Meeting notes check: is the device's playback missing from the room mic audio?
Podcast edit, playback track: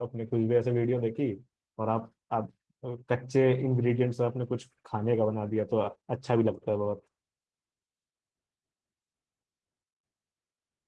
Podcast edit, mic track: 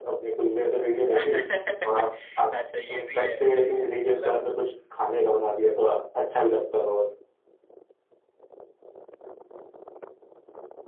No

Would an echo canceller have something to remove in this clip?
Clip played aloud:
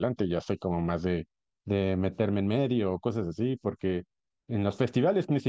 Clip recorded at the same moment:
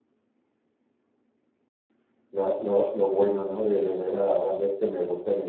No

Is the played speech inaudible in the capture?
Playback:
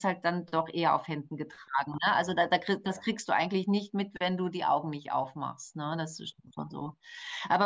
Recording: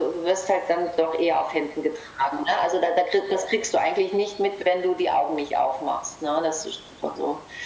No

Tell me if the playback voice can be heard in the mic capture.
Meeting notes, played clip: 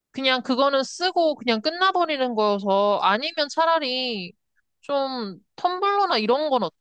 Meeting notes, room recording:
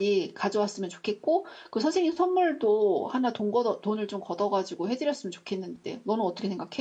No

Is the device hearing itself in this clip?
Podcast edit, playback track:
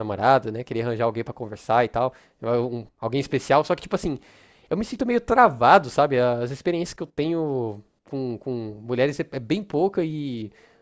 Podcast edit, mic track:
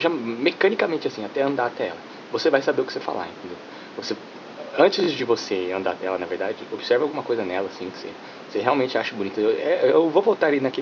No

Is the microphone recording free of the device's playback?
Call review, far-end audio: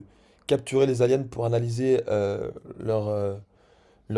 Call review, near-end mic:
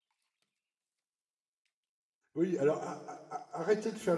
Yes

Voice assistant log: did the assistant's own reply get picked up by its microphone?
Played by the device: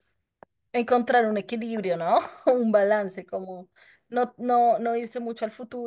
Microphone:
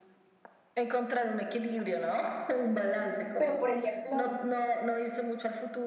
Yes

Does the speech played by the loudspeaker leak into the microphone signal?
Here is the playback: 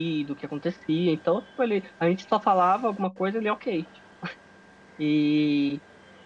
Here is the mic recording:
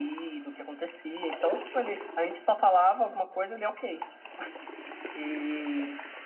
Yes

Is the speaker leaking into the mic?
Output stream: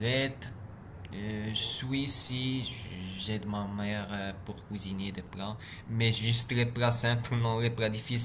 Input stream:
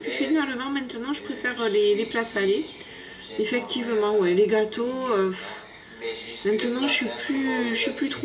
Yes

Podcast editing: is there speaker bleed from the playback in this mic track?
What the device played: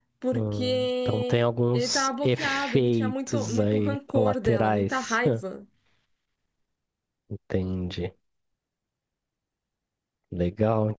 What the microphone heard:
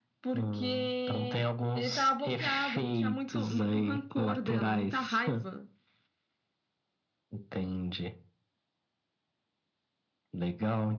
Yes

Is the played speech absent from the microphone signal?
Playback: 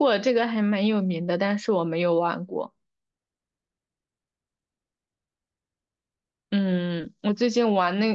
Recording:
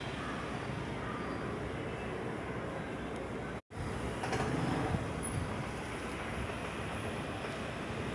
Yes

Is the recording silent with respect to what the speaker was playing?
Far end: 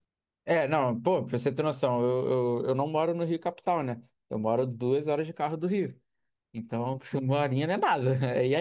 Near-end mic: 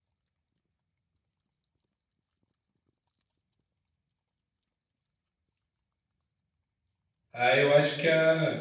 Yes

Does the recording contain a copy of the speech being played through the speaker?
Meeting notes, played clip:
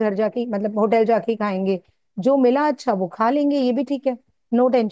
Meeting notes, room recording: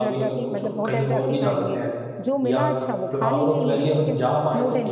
Yes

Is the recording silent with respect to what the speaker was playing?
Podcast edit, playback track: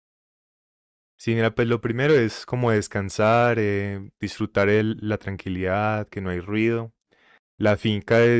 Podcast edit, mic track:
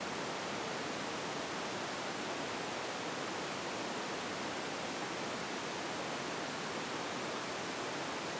Yes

